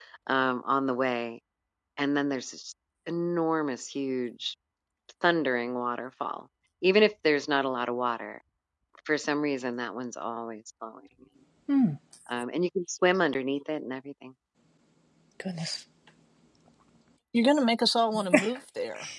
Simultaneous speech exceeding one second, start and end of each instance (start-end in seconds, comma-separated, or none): none